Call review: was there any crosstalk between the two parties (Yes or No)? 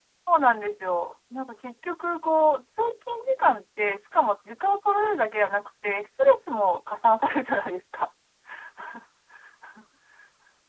No